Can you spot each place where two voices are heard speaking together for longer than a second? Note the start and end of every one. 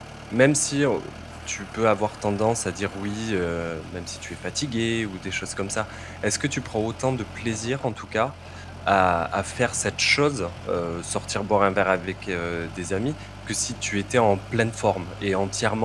none

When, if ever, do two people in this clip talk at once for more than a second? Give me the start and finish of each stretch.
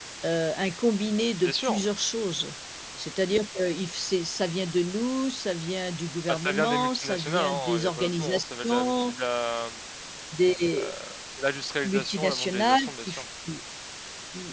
6.3-9.2, 11.8-13.2

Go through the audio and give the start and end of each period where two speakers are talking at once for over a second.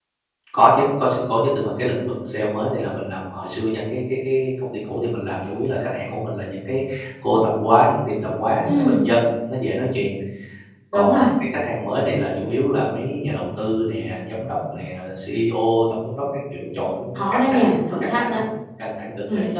17.1-18.4

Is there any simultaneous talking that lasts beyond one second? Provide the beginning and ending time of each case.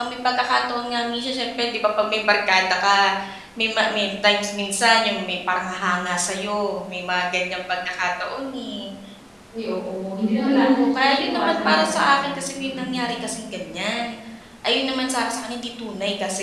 10.3-13.0

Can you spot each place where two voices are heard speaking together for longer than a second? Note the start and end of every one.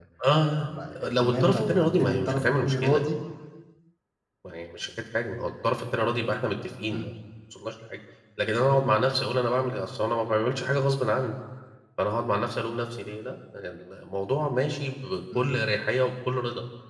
0.6-3.0

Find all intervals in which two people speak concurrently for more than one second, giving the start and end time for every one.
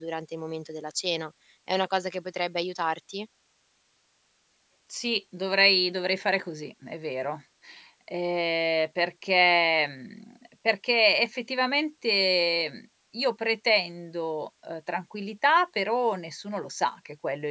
none

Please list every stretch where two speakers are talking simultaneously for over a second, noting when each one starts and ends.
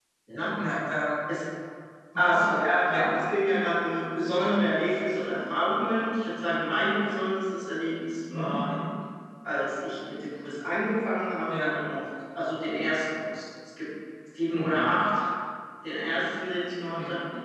none

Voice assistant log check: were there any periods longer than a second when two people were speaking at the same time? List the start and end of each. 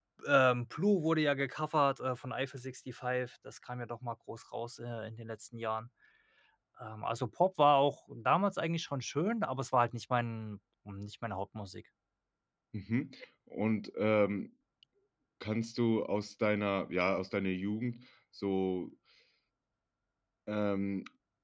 none

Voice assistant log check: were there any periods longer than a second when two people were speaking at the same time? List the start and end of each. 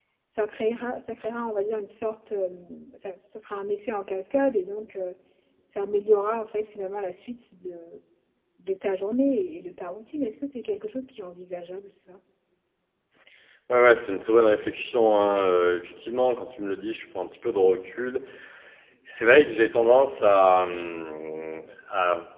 none

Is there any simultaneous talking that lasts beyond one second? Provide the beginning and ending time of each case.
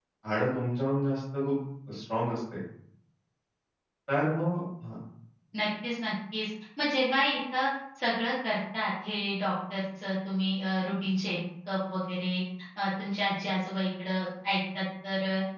none

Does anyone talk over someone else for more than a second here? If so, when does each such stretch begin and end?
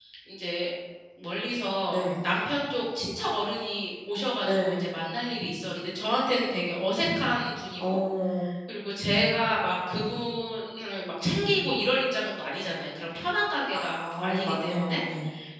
13.7-15.0

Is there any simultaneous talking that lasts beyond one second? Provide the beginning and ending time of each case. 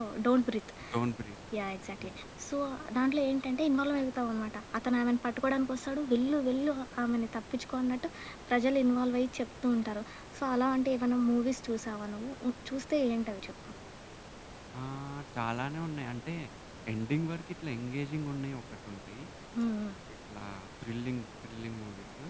none

